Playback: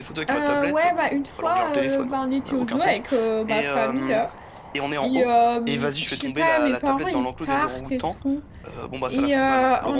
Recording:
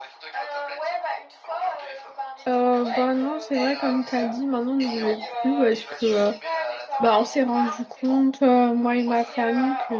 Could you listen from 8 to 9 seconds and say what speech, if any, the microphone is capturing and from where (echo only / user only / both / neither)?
both